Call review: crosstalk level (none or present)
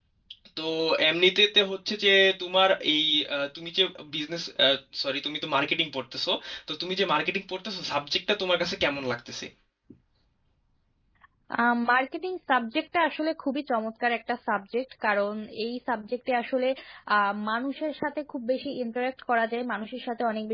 none